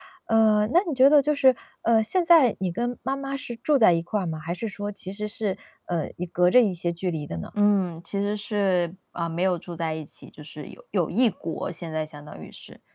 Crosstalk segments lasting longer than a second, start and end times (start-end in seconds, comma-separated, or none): none